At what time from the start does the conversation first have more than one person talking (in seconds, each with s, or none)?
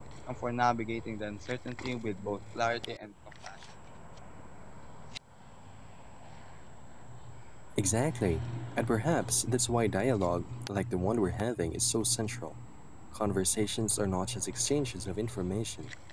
none